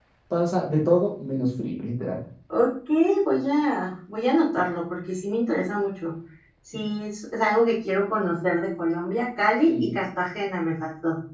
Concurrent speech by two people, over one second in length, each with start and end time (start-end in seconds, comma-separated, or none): none